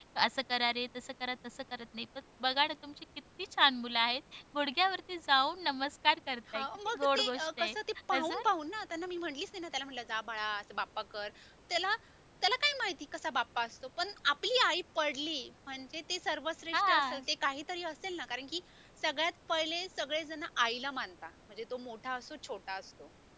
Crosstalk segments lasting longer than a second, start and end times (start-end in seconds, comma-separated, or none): 6.5-7.7